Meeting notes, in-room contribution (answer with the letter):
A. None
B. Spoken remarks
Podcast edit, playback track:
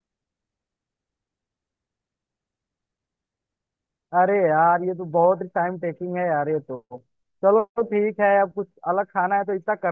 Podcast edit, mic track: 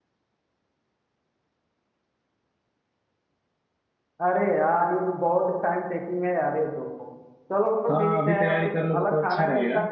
B